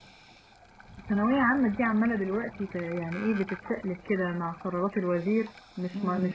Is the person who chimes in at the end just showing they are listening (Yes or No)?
Yes